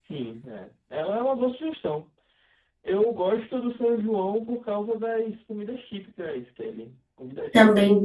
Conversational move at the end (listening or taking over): taking over